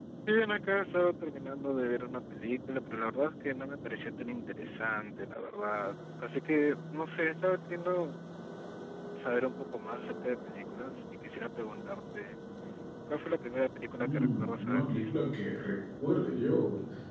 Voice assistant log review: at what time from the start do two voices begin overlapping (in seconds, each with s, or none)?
14.0 s